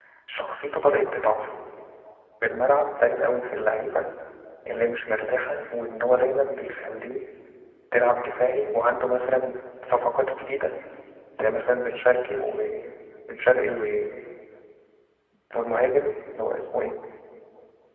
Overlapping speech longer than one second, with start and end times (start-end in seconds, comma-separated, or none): none